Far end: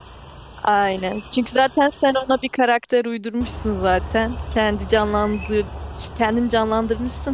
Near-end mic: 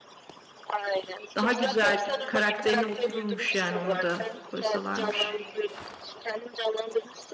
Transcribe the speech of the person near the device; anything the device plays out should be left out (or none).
Daha güzel karakterine otururmuş yani onu da koysalarmış.